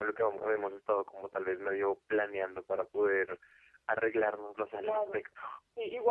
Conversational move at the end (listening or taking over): taking over